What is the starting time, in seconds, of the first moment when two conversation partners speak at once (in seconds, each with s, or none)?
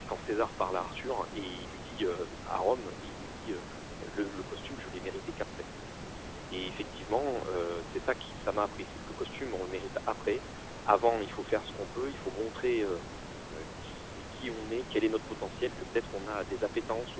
none